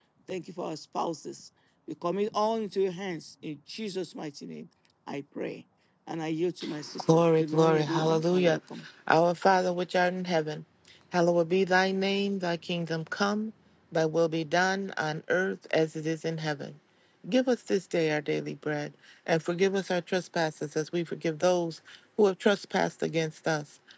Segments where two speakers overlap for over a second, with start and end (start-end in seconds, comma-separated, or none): 7.1-8.6